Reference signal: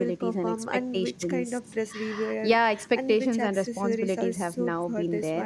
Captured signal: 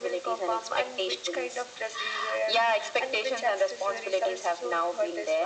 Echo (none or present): present